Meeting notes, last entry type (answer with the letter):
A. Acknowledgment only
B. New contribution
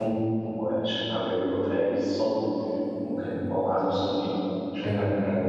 B